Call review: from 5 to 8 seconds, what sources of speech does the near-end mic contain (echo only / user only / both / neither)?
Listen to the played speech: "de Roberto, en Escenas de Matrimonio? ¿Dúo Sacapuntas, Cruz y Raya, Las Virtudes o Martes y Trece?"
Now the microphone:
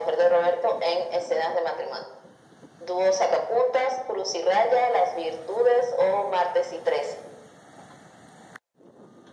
echo only